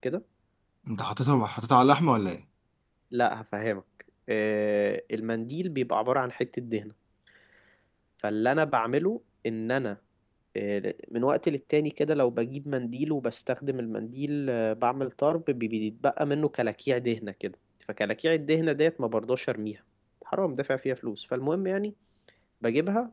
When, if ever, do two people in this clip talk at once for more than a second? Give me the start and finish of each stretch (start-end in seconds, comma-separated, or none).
none